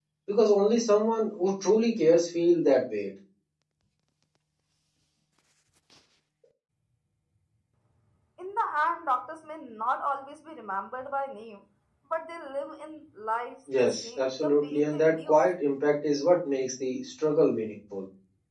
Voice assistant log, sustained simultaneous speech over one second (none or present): present